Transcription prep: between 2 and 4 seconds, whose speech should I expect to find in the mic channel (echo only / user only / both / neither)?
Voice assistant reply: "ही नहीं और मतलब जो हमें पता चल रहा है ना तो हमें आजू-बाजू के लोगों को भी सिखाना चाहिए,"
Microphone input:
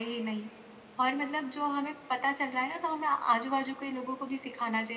echo only